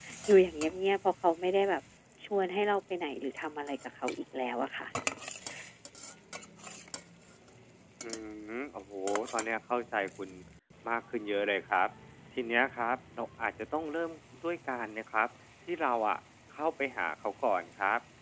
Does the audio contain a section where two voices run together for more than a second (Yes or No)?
No